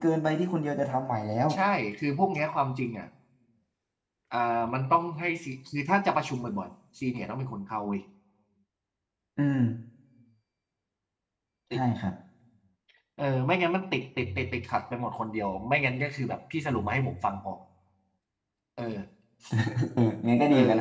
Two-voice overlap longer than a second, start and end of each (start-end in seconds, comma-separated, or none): none